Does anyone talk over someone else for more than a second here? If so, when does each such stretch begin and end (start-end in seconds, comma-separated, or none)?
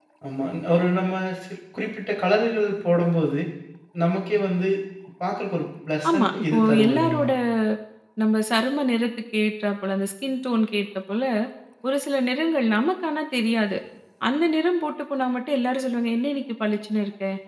6.1-7.3